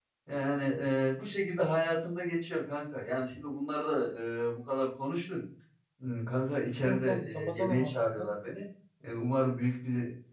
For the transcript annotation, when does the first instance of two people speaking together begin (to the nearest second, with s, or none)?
7 s